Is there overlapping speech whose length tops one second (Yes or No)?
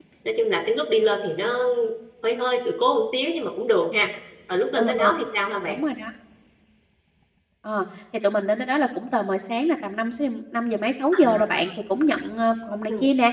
No